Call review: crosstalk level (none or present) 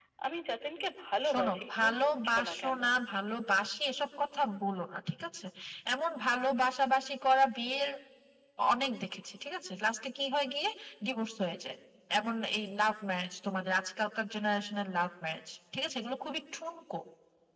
present